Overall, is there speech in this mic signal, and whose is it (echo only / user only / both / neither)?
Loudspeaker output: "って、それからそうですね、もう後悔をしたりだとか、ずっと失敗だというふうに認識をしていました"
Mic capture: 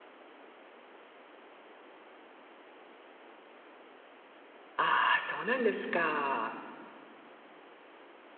user only